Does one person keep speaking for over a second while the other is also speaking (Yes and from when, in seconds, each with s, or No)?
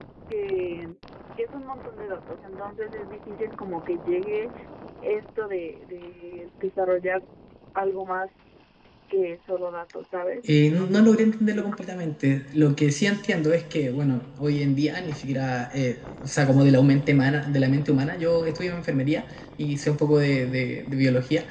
Yes, from 10.4 s